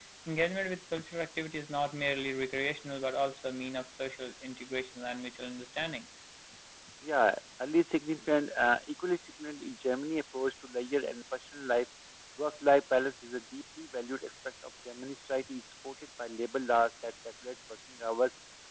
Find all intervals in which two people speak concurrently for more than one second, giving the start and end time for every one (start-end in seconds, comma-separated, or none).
none